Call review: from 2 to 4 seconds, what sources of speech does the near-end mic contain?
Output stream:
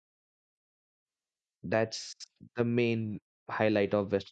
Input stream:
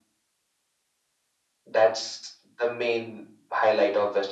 echo only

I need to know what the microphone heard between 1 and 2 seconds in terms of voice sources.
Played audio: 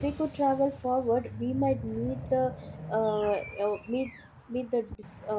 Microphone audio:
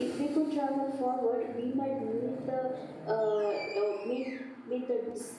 echo only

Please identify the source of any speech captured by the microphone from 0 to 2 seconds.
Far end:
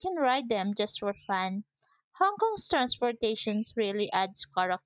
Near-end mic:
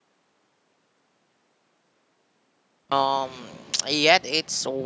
neither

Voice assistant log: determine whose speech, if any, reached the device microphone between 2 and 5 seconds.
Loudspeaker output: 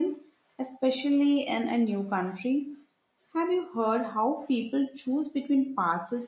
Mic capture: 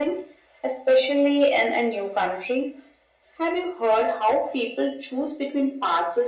echo only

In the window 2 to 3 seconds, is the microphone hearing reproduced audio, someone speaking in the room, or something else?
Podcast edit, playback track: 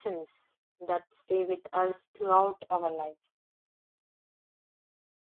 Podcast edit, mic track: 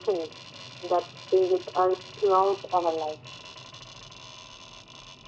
echo only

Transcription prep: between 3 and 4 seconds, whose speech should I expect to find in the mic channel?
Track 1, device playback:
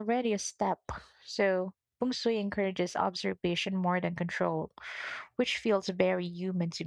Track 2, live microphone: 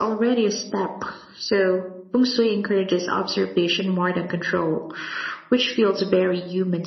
echo only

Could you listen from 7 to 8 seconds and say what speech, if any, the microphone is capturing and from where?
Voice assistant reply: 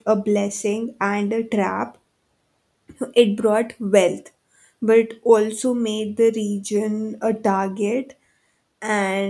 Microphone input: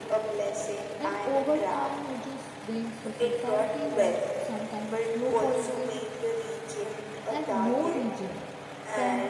both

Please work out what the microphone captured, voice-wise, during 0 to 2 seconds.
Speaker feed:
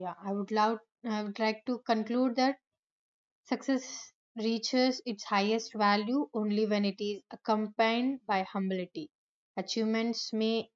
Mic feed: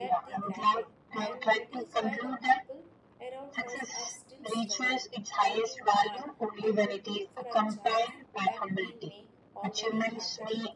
both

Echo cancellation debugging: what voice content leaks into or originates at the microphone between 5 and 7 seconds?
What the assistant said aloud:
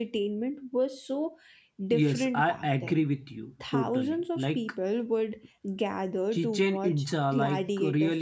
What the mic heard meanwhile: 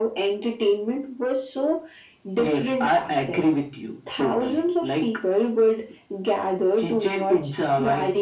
echo only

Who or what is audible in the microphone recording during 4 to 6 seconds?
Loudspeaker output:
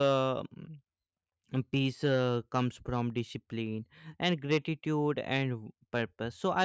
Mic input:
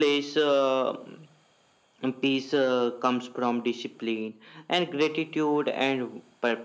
echo only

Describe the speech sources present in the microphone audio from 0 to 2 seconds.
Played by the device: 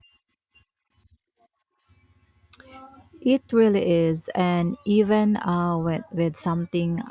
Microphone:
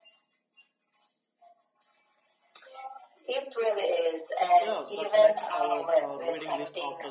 neither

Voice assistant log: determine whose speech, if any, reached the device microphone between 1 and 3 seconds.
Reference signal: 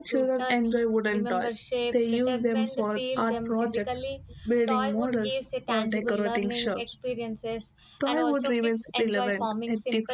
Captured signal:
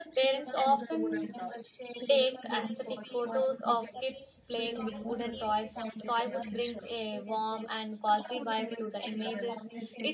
both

